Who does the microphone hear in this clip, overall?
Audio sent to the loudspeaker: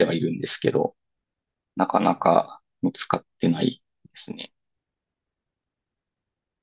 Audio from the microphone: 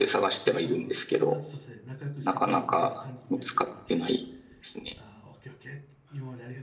both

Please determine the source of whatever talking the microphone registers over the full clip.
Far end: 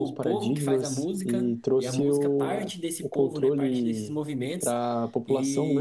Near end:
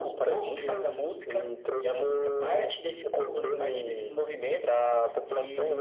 echo only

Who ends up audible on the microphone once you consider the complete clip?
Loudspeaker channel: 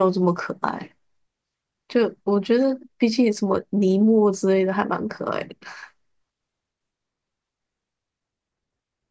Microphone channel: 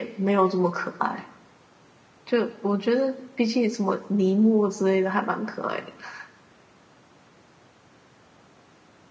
echo only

